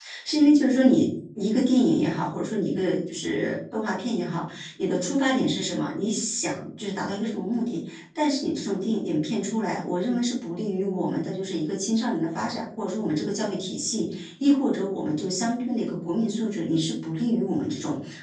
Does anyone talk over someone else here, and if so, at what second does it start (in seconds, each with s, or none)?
none